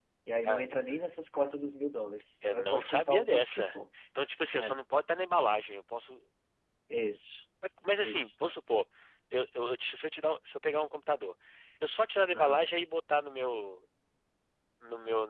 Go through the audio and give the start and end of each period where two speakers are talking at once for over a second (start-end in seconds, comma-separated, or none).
2.5-3.8